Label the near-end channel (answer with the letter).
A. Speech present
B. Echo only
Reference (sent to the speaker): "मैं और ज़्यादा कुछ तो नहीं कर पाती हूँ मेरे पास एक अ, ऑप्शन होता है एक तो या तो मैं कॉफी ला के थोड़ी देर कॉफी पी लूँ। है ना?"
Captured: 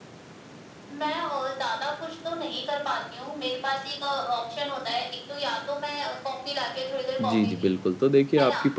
A